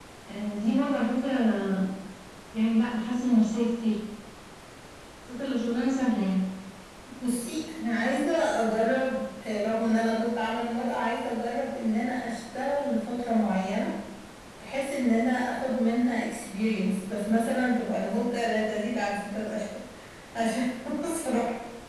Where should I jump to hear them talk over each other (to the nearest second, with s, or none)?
none